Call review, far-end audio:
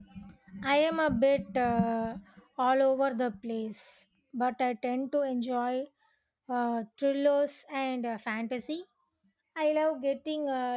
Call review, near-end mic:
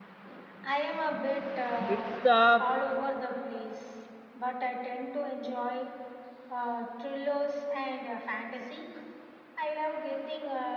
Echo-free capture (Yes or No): No